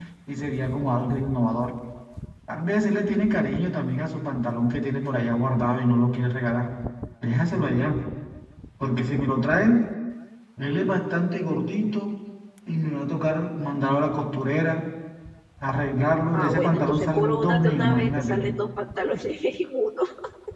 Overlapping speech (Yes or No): Yes